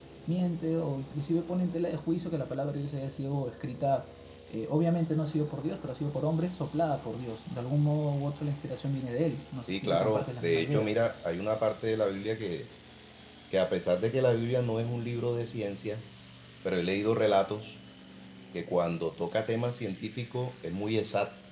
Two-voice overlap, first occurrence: 9.6 s

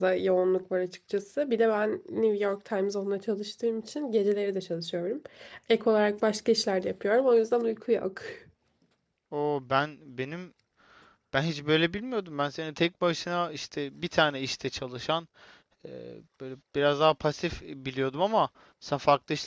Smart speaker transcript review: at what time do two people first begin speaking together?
none

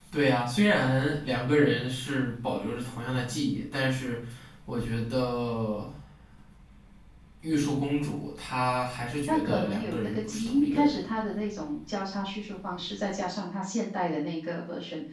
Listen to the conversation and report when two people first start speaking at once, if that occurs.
9.3 s

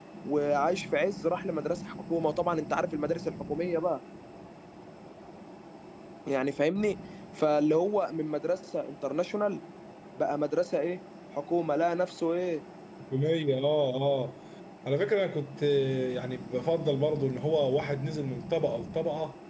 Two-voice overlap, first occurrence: none

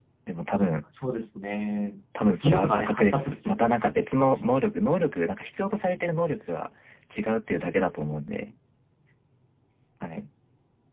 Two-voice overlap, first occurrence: 2.4 s

